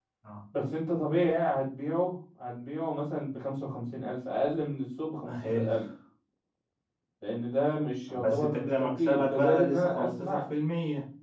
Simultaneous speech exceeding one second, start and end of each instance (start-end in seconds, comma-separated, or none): 8.1-10.4